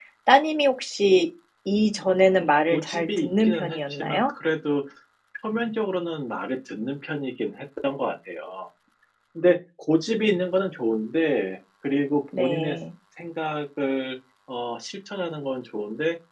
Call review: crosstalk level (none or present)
present